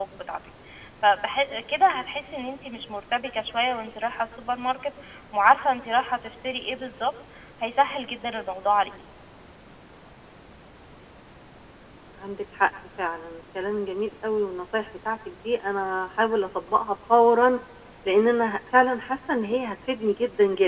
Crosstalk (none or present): none